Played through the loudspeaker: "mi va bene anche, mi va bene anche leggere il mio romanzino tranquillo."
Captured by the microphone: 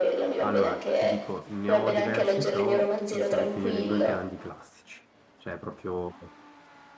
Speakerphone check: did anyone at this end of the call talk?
Yes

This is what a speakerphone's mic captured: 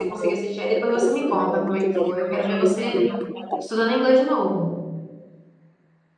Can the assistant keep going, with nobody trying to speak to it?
No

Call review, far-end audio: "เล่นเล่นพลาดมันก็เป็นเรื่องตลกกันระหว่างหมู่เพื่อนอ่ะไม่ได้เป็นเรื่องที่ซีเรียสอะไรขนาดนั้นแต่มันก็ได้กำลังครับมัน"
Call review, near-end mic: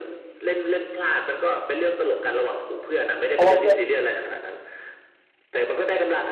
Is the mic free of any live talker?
No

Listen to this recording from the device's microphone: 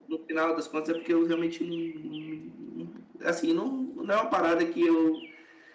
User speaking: Yes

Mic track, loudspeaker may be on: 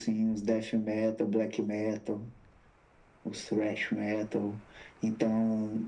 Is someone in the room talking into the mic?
No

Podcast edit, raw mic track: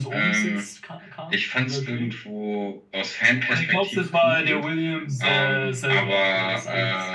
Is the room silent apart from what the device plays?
Yes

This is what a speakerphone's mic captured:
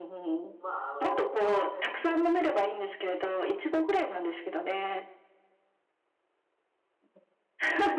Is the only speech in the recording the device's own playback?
No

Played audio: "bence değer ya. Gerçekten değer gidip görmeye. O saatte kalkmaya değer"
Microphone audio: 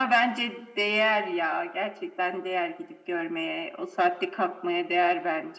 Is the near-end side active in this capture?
No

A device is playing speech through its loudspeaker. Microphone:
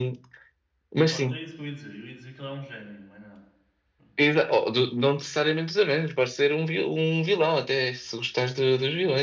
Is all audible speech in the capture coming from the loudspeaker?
No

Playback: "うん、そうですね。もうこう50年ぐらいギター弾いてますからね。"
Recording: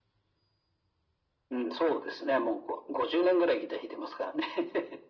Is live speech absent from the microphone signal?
Yes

